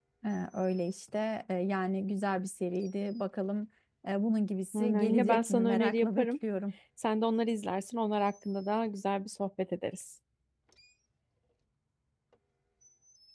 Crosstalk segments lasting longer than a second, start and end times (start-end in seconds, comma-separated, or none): 4.7-6.3